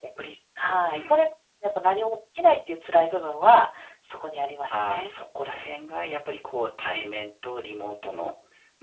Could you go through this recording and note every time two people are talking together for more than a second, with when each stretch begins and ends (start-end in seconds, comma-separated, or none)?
none